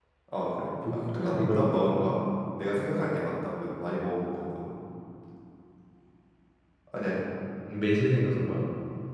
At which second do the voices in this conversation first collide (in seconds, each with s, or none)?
0.9 s